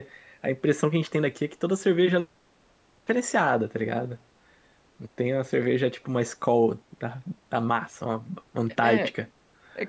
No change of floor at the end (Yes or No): No